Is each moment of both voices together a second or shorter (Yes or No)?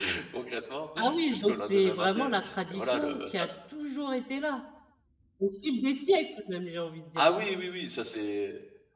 No